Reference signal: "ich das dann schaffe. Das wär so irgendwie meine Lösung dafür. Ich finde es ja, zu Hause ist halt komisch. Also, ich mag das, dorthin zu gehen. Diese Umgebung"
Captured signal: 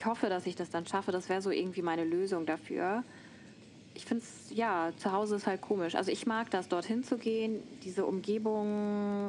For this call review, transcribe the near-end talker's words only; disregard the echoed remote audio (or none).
none